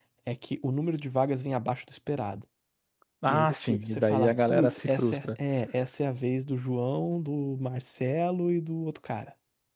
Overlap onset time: 3.3 s

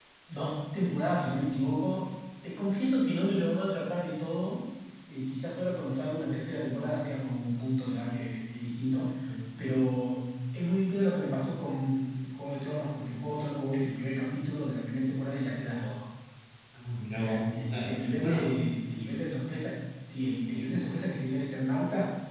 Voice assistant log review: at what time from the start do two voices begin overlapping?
17.1 s

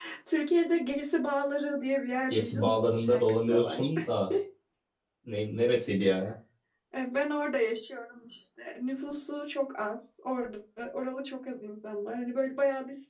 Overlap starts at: 2.1 s

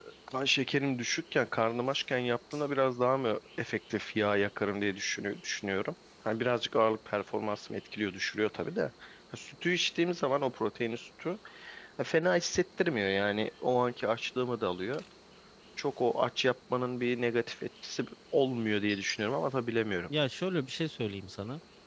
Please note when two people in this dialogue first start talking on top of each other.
none

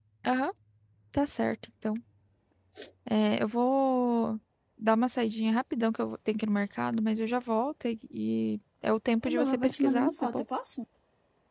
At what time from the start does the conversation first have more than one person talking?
9.2 s

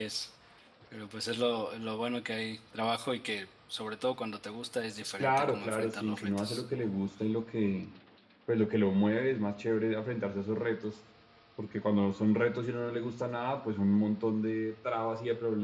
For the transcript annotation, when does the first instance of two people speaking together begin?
5.2 s

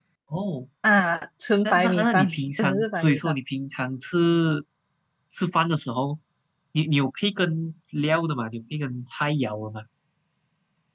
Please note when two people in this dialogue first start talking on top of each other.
1.6 s

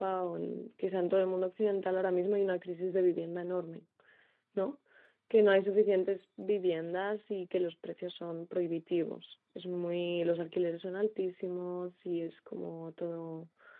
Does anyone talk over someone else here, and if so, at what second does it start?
none

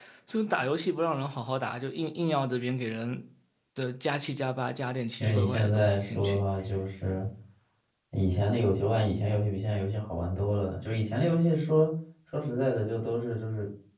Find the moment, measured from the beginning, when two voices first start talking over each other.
5.2 s

